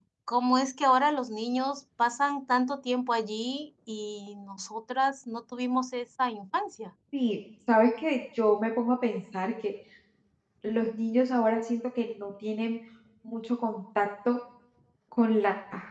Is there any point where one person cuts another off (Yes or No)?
No